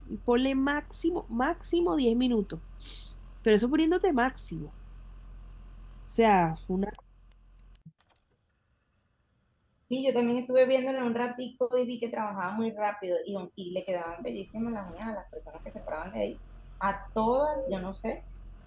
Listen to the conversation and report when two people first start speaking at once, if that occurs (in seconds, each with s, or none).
none